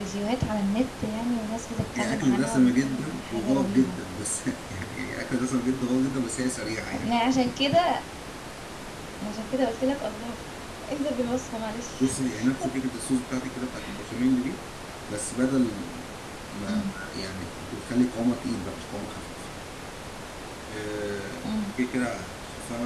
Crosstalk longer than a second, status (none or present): present